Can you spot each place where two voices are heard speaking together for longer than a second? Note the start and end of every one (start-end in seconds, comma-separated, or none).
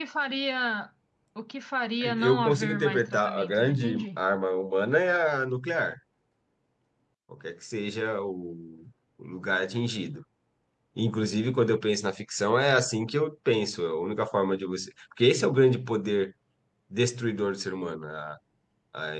2.2-4.2